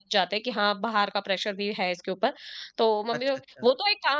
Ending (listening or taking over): listening